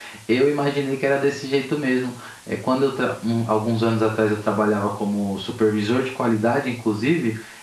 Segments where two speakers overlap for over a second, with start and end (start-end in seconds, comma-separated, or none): none